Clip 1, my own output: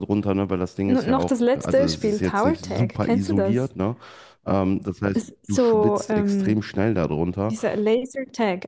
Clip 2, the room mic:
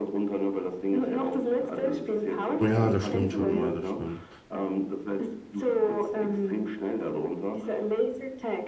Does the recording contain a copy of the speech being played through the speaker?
Yes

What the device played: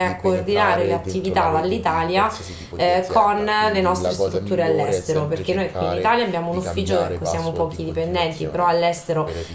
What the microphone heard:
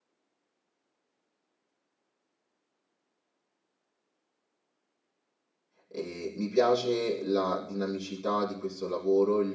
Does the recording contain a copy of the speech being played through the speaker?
No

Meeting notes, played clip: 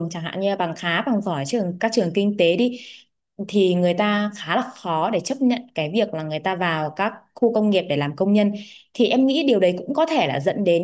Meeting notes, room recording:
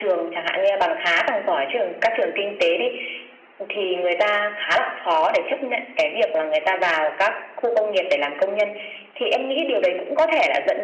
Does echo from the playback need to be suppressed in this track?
Yes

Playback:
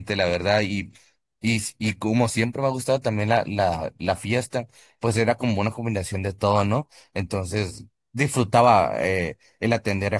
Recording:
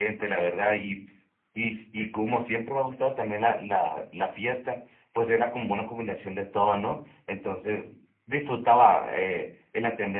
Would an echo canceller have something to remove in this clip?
Yes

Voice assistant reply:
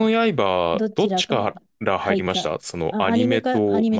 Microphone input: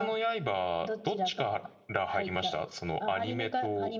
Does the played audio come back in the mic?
Yes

